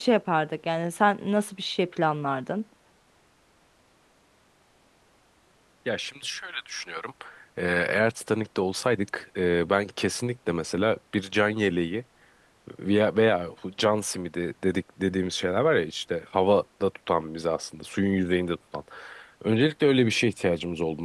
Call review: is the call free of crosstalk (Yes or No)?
Yes